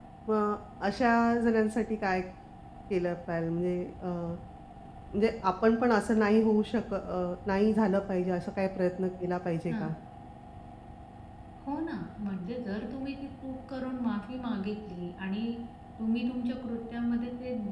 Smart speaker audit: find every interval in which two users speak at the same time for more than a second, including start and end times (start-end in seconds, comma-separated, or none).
none